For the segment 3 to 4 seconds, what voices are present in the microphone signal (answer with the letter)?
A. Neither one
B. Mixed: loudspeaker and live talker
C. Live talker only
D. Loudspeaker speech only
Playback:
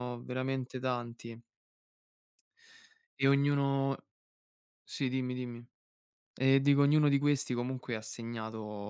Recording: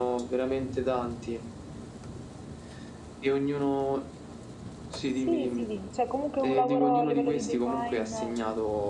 D